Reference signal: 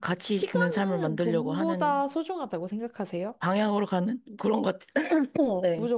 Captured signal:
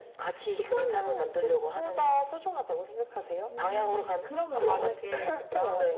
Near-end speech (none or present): present